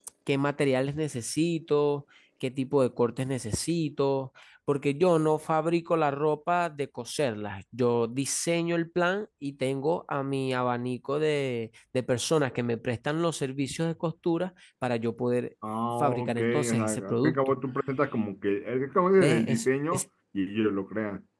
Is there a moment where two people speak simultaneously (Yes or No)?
Yes